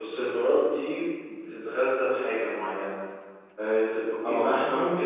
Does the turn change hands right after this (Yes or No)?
No